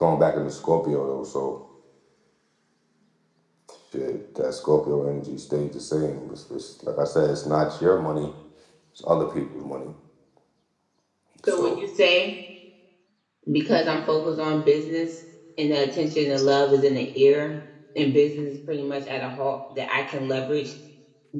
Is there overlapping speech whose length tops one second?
No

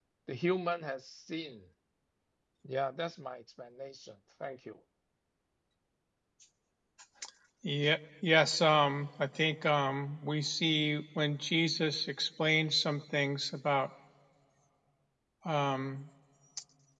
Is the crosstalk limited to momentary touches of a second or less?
Yes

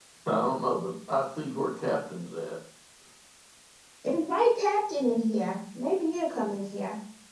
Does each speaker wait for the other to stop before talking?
Yes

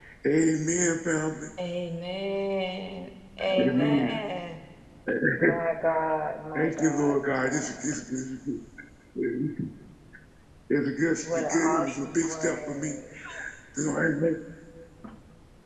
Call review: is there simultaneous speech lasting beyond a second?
Yes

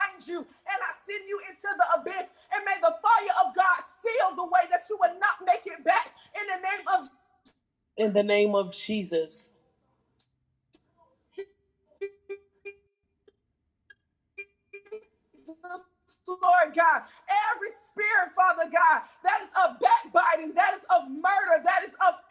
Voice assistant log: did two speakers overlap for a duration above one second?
No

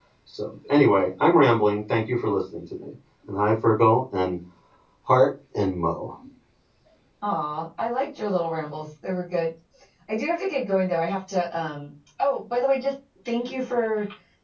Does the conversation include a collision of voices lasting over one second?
No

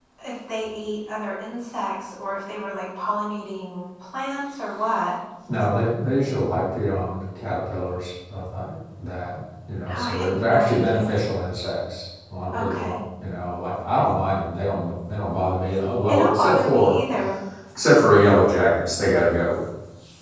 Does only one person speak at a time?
No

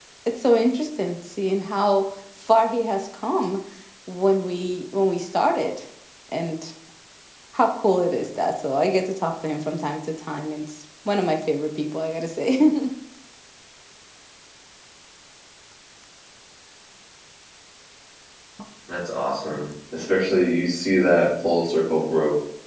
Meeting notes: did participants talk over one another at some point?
No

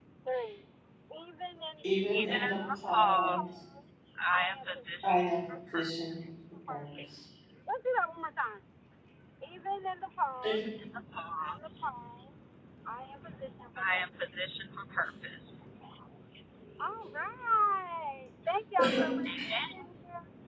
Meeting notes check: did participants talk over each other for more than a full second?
Yes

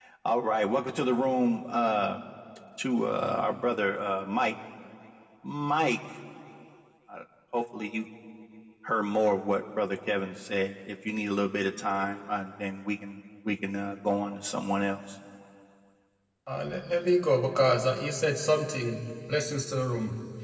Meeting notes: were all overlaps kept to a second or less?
Yes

